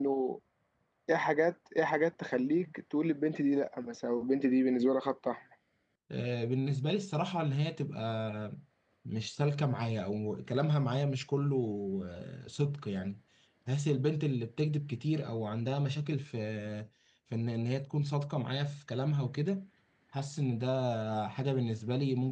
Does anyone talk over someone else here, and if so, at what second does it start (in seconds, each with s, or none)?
none